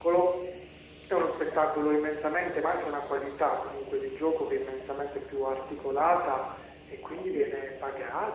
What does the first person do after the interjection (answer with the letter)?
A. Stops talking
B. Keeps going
B